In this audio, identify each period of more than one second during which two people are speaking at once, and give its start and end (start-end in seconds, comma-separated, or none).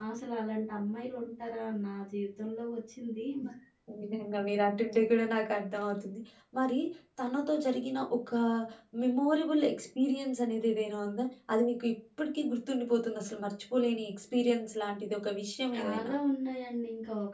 none